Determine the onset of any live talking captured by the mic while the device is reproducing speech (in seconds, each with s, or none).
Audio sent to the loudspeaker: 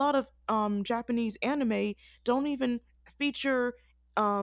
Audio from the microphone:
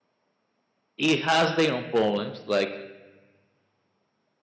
1.0 s